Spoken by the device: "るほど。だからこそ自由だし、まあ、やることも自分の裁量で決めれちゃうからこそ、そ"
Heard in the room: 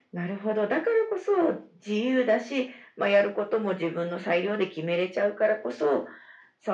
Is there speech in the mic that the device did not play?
No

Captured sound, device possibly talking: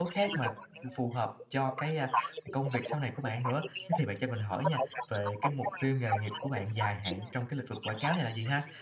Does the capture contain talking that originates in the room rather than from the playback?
Yes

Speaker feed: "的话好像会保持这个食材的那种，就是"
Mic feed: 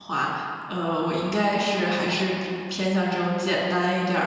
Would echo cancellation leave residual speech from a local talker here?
Yes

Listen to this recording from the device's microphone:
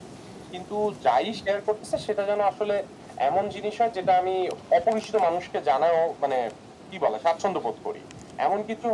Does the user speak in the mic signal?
No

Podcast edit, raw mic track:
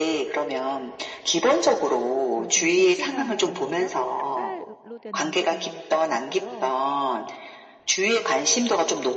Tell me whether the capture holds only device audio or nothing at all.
No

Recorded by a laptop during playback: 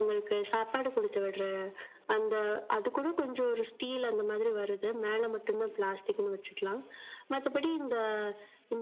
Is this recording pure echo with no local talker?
Yes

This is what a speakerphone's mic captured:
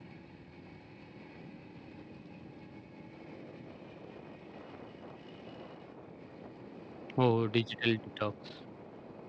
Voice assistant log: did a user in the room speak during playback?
Yes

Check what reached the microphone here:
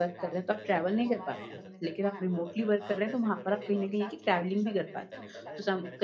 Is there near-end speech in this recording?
Yes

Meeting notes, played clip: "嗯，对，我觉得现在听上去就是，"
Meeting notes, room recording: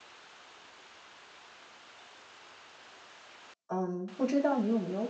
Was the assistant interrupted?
Yes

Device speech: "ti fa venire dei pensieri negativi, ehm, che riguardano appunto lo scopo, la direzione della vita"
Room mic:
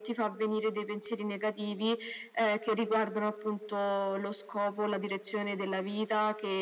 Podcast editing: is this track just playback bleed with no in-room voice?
Yes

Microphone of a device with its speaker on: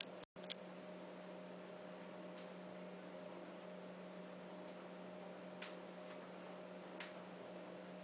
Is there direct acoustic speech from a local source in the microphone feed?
No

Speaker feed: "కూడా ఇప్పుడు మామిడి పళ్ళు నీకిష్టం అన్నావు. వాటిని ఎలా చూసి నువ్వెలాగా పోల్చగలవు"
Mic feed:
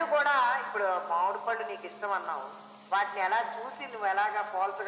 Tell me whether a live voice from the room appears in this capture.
No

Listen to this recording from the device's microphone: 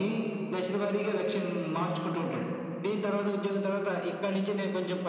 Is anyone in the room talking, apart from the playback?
No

